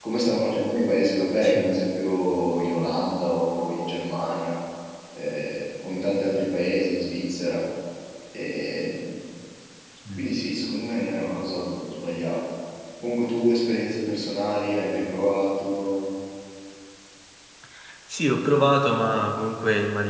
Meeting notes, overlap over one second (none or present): none